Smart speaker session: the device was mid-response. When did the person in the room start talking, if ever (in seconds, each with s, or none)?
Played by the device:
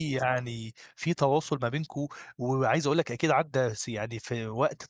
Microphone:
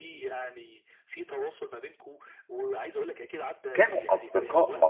3.7 s